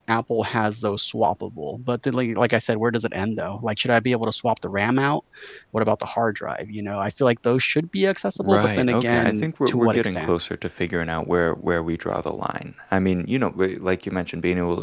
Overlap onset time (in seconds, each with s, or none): 8.4 s